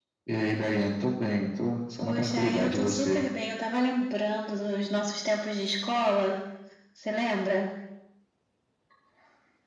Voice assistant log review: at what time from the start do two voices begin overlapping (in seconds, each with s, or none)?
2.0 s